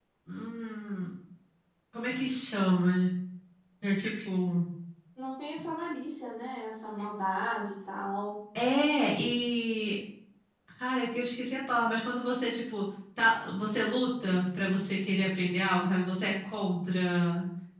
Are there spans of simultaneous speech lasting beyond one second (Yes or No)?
No